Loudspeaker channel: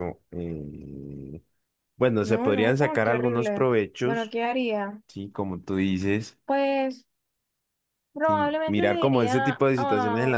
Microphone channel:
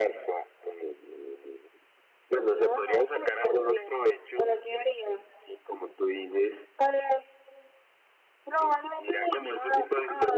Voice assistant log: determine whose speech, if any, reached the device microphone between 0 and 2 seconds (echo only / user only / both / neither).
echo only